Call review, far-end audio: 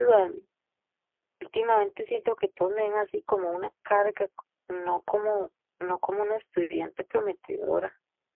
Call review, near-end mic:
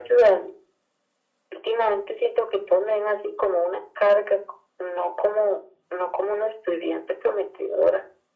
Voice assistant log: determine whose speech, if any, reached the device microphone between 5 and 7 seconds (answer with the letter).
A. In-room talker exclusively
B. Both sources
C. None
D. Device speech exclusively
D